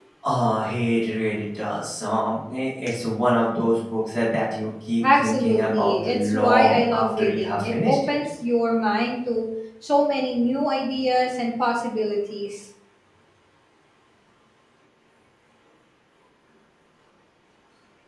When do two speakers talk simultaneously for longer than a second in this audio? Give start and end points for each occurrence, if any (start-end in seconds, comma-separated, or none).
5.0-8.1